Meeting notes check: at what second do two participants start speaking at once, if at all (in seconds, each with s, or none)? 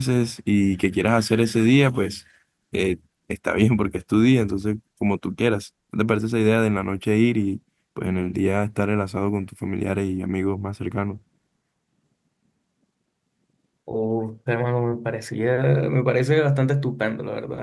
none